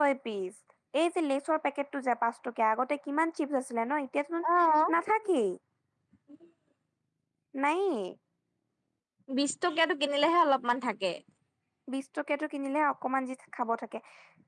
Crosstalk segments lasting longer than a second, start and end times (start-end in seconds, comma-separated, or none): none